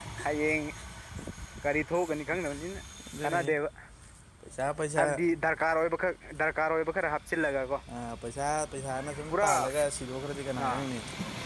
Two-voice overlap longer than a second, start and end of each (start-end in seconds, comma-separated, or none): none